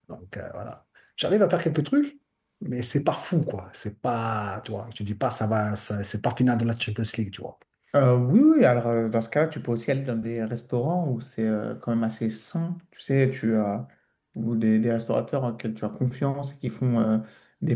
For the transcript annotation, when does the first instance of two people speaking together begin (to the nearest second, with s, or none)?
none